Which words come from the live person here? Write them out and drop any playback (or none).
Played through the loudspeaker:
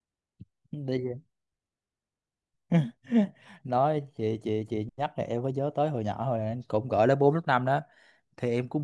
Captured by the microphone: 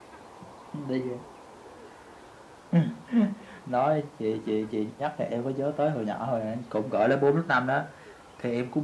none